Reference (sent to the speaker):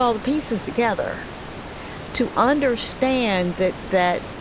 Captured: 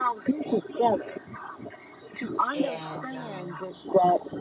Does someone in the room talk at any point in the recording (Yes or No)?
Yes